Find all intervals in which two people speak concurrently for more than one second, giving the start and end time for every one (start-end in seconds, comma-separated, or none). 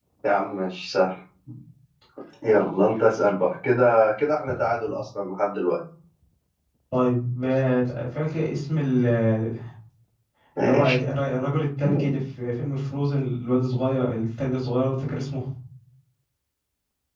none